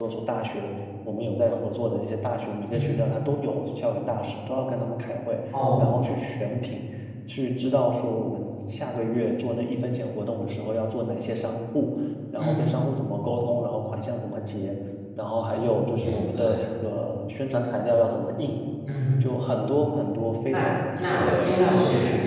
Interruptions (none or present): present